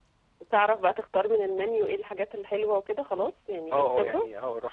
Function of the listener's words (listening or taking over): taking over